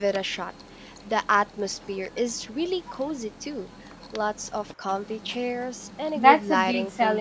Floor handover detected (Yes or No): Yes